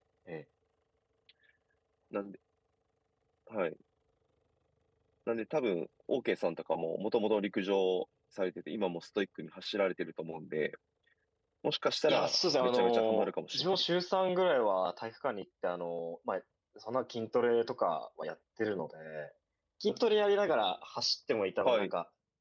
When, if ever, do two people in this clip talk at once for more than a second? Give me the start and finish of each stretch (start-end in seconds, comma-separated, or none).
12.1-13.8